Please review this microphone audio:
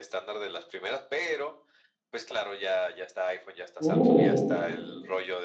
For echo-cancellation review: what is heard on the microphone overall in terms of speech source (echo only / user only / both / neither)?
both